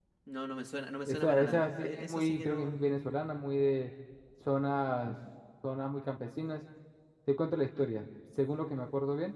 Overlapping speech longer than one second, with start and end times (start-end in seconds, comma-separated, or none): 1.1-2.8